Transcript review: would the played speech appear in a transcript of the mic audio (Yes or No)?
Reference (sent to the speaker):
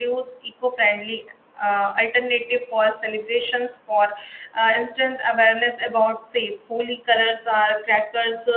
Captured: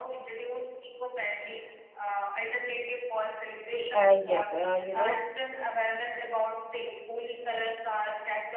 Yes